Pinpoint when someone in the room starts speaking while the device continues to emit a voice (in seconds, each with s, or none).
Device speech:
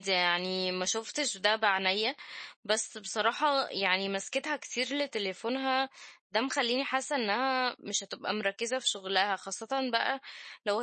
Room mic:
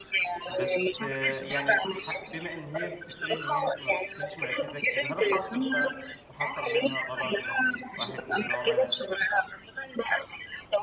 0.5 s